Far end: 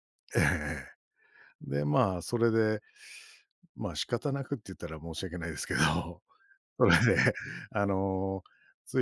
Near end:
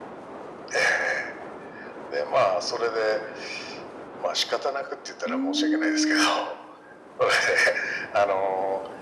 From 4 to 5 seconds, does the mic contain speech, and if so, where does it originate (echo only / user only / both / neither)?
echo only